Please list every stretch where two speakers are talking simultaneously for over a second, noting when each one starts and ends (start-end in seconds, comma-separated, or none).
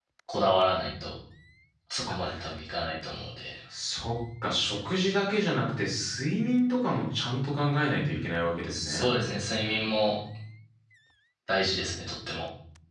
none